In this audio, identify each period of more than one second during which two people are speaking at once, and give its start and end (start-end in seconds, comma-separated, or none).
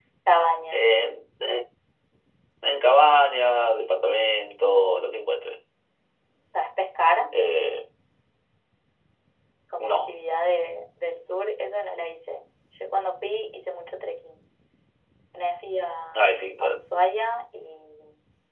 none